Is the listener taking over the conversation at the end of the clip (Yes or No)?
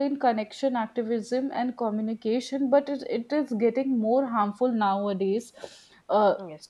No